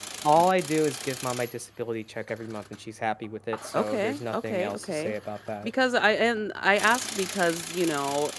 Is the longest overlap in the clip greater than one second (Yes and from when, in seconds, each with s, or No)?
Yes, from 3.7 s